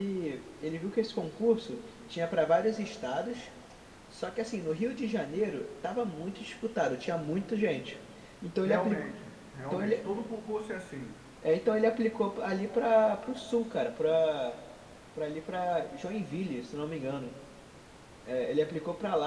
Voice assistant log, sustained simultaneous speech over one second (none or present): none